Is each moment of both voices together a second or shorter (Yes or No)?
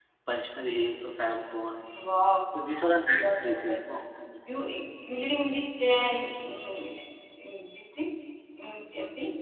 Yes